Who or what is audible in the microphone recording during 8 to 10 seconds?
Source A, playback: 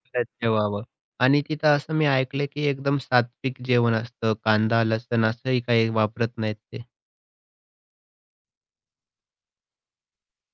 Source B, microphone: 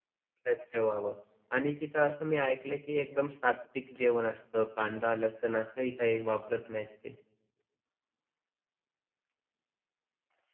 neither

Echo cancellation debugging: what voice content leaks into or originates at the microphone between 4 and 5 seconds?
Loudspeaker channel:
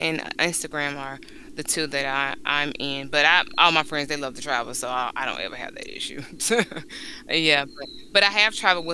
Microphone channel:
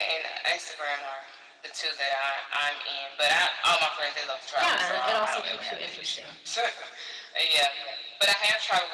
both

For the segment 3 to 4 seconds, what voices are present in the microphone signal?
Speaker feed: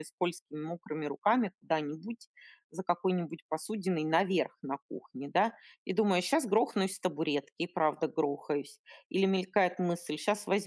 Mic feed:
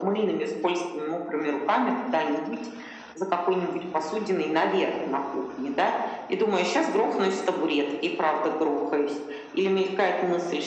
echo only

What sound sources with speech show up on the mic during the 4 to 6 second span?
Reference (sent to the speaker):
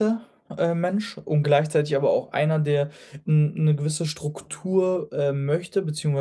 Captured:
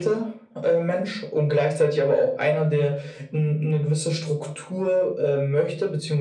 echo only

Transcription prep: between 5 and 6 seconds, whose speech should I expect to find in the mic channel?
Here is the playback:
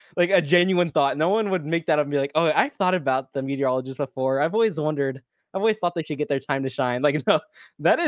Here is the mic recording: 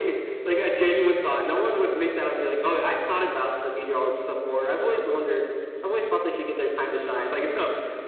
echo only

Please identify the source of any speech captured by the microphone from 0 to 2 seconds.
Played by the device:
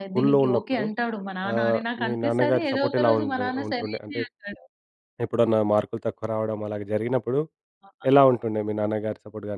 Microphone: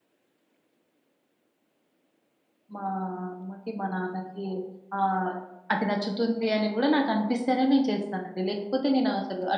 neither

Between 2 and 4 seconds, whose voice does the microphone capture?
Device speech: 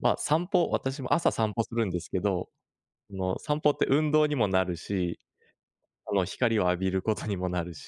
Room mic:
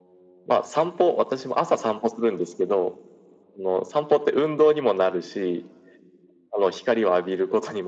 echo only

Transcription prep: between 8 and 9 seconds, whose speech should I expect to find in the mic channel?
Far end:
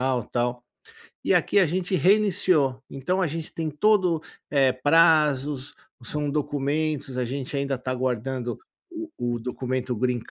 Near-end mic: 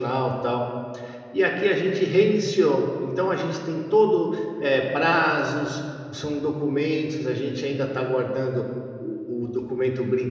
echo only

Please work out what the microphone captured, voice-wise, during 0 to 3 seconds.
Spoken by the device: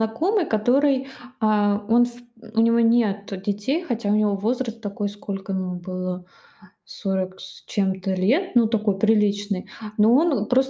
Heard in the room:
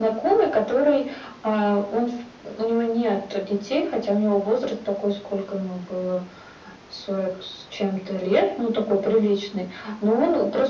echo only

